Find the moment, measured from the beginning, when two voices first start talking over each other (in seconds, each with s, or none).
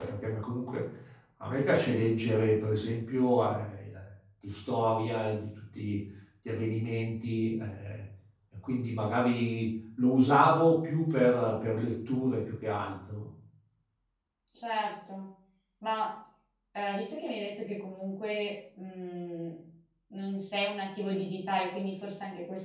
none